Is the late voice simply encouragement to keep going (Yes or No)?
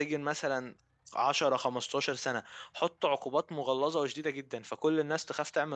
Yes